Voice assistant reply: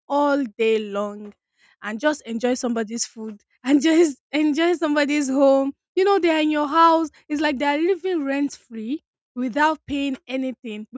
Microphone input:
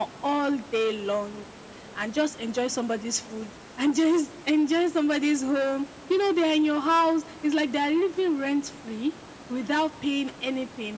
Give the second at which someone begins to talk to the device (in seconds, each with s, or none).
none